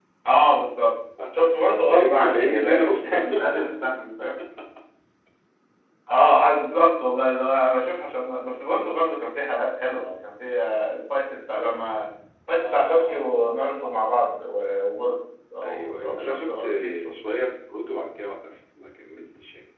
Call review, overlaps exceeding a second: present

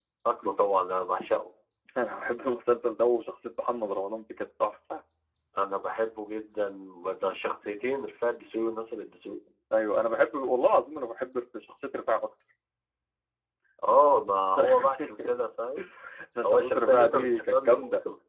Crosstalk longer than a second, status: present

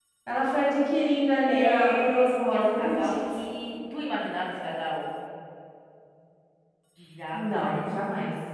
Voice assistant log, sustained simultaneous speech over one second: present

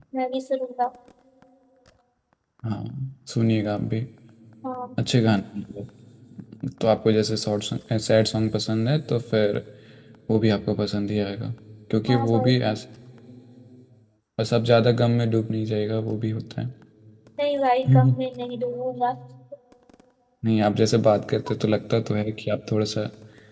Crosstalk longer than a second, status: none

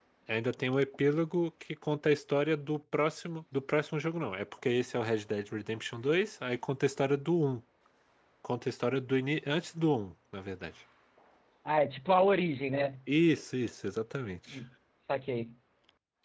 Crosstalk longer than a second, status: none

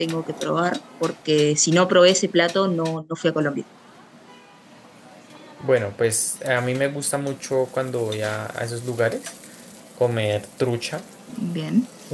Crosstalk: none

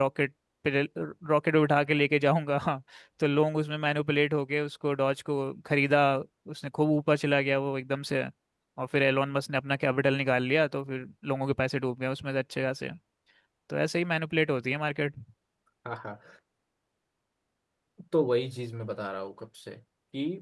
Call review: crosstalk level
none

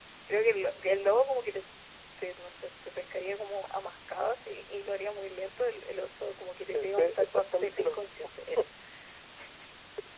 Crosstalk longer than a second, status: present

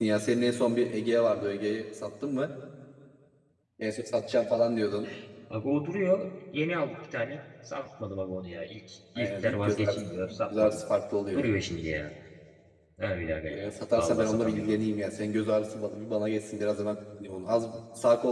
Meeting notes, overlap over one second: present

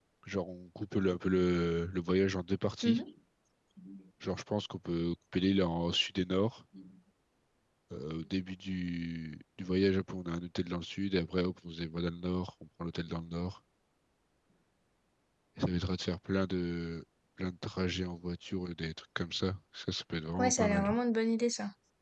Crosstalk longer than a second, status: none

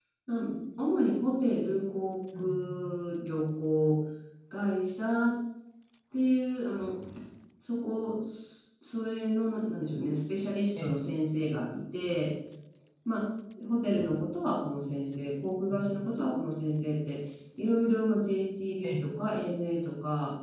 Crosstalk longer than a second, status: none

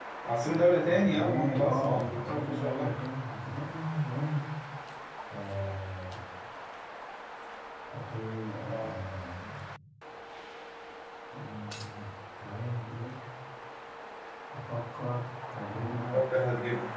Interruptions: present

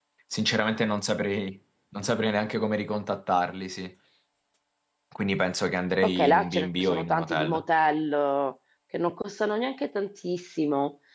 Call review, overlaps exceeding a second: present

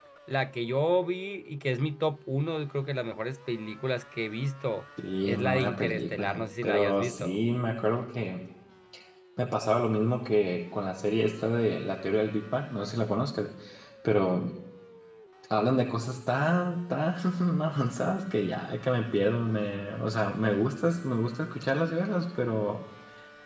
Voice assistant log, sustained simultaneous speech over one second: present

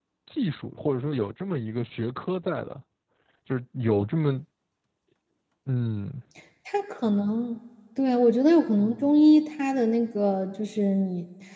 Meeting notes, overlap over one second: none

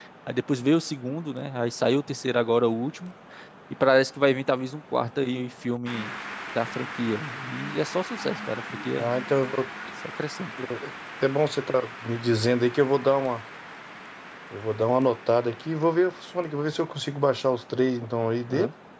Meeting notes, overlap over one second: none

